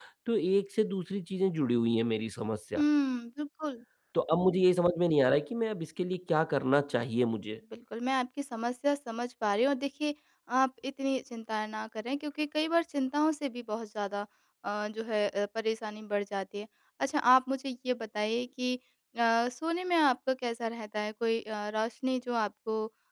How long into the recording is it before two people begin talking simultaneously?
none

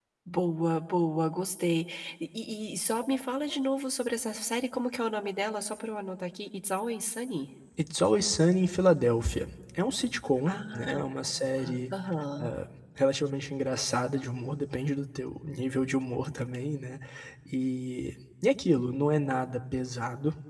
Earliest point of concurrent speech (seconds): 10.5 s

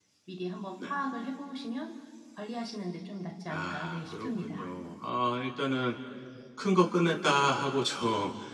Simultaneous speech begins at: 3.5 s

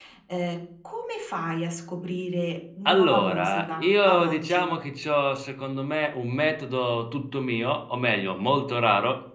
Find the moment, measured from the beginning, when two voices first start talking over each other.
2.9 s

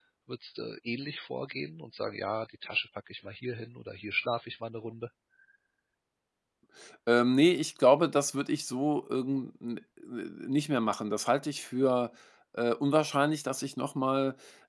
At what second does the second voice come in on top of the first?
none

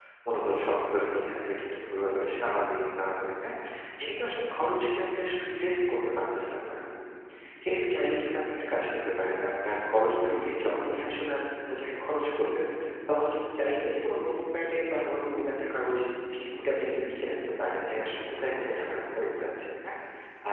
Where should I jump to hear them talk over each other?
none

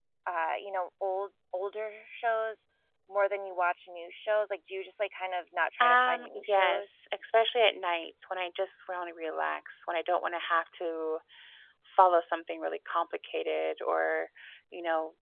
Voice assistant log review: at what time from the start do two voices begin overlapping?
5.8 s

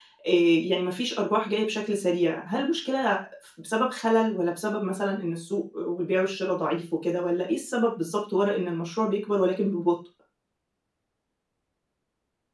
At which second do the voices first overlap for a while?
none

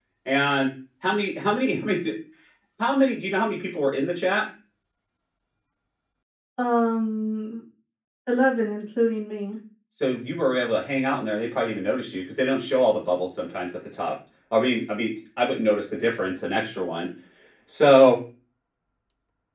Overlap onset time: none

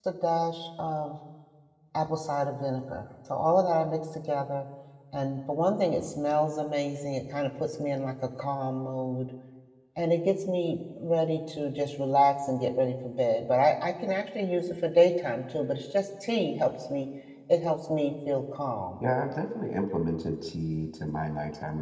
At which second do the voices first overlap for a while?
none

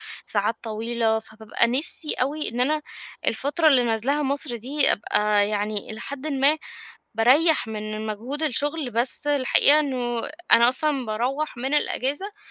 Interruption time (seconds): none

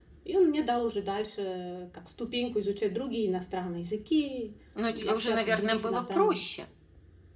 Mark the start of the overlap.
4.8 s

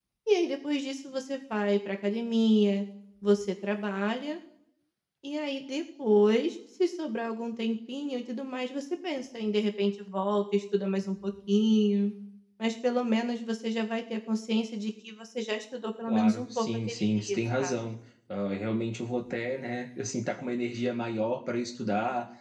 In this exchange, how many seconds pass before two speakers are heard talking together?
16.1 s

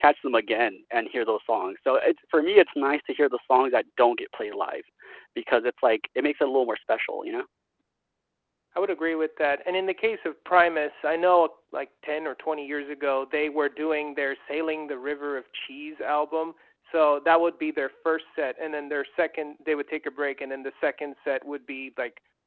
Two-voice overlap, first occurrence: none

